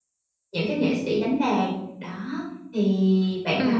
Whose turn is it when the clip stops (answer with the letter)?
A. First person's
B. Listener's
B